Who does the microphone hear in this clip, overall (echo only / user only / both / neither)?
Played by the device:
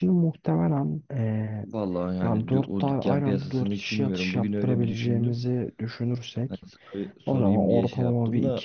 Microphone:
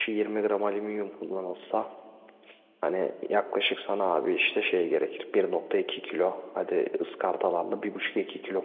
user only